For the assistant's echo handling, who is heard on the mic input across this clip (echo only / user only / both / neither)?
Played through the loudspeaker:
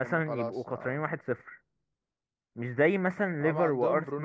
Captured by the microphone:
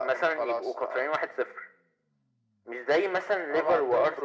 echo only